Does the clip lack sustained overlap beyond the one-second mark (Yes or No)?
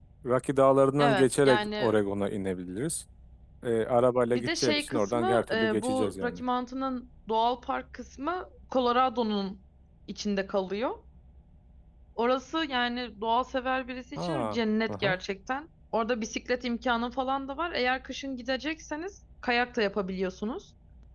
No